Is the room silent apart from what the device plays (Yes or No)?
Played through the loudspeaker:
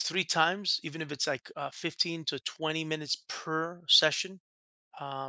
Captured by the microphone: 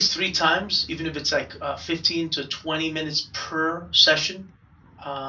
Yes